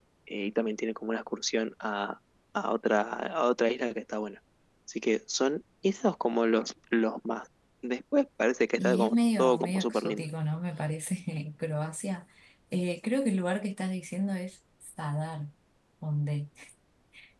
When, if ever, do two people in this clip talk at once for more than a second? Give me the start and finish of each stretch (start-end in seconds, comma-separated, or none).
8.8-10.2